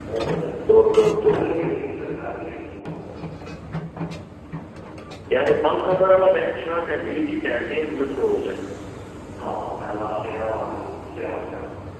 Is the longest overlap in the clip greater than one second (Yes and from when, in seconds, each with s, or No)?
No